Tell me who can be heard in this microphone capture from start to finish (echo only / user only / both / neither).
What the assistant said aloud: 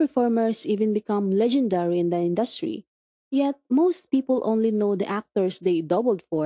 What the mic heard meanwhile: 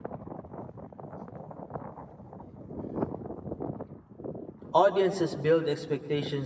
user only